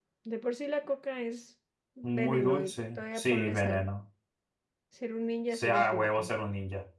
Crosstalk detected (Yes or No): Yes